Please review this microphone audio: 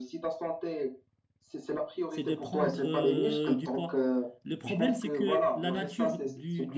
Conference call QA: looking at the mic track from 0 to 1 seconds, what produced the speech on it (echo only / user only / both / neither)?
echo only